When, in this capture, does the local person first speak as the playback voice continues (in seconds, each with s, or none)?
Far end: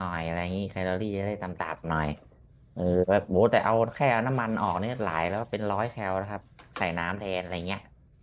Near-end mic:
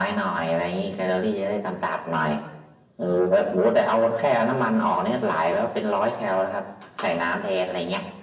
none